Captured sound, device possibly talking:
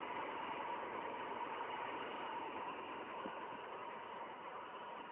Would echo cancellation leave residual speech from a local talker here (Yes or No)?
No